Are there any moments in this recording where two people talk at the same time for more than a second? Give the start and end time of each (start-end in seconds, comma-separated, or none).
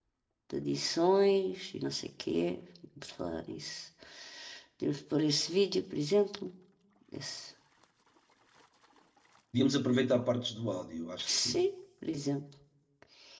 none